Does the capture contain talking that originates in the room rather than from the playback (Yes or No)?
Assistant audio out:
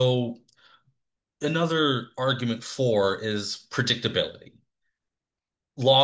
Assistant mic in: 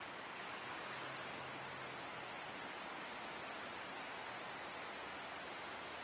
No